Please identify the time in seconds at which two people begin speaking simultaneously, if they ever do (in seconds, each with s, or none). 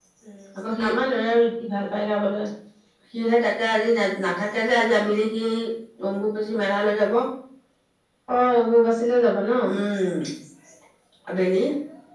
none